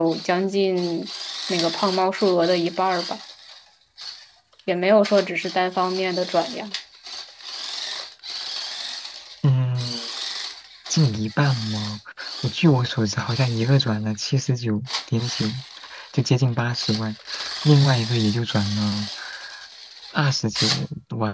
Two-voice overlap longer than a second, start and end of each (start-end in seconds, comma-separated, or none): none